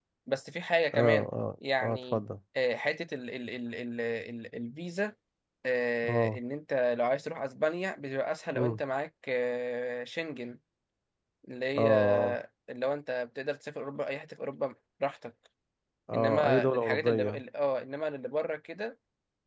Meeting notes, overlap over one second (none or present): present